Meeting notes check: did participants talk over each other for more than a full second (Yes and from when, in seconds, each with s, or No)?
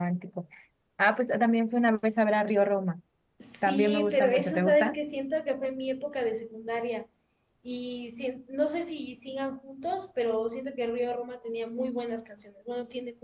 Yes, from 3.6 s